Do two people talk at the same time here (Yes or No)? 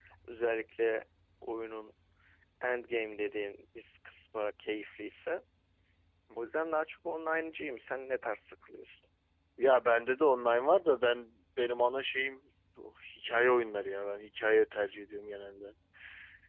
No